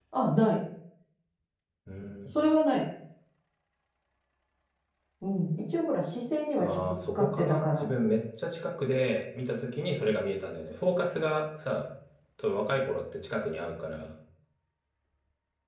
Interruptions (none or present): present